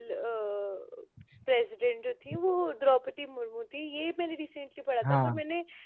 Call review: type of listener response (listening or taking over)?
listening